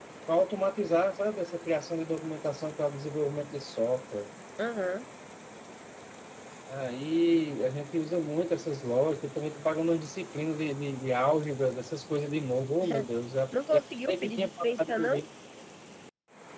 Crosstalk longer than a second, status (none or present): present